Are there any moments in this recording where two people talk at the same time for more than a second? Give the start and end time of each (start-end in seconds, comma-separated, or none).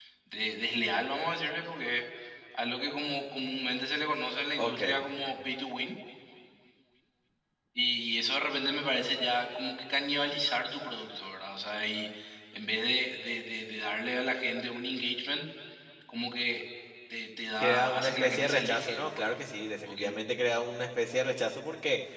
17.6-19.3